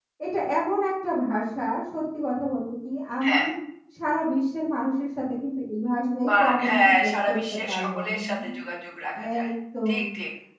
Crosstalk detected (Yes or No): Yes